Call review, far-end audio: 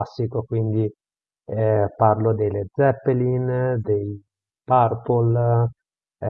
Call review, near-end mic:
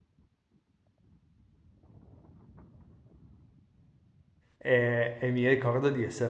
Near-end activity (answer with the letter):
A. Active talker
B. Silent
A